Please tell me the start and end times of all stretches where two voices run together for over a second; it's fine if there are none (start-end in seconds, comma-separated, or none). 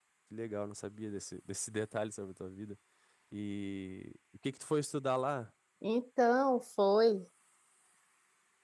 none